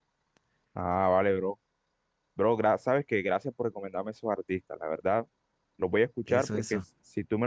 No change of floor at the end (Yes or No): Yes